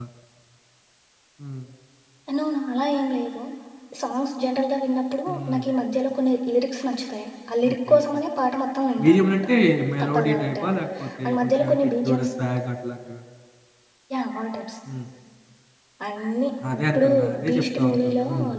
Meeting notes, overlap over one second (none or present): present